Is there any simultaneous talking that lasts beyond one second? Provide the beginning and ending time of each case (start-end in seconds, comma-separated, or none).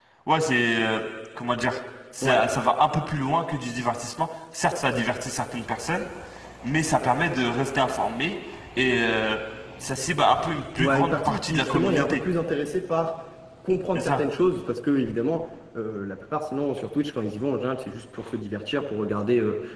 10.8-12.2